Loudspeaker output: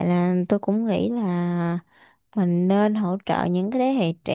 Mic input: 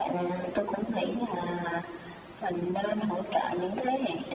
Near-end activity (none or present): none